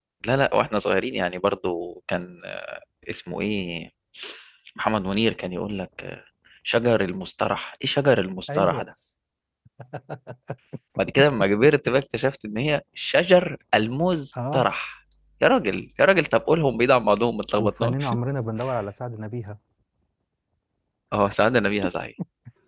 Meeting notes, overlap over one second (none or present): none